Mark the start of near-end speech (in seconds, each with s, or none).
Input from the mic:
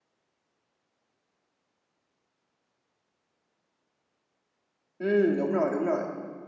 5.0 s